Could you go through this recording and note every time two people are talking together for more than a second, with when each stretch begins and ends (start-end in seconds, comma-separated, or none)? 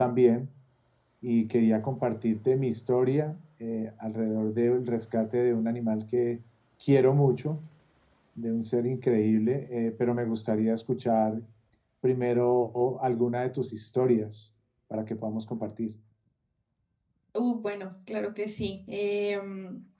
none